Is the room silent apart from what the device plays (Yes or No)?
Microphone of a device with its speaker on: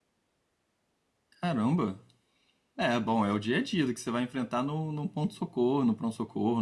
No